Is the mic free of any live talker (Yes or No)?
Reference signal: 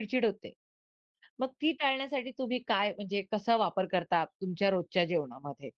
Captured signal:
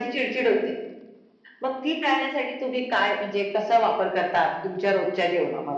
Yes